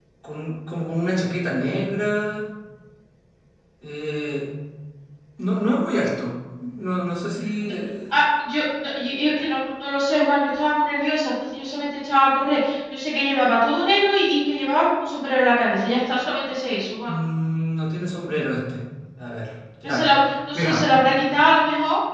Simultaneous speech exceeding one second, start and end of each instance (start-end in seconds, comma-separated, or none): none